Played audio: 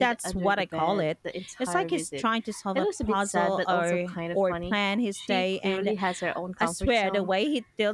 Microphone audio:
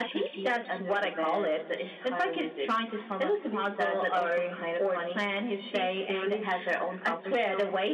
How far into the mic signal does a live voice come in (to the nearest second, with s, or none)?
none